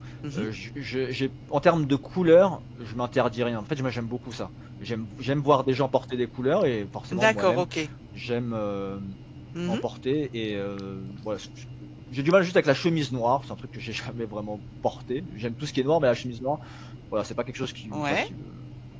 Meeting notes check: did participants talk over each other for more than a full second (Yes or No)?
No